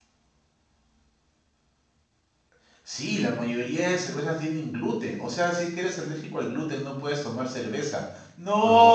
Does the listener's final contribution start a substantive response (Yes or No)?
Yes